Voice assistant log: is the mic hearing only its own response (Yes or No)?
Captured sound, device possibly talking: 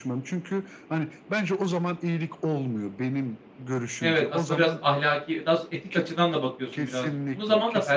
No